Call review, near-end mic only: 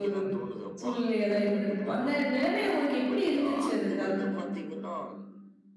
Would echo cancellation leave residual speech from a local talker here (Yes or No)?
Yes